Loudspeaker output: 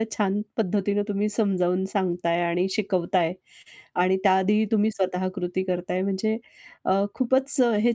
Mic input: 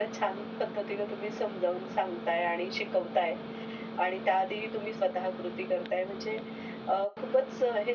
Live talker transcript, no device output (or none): none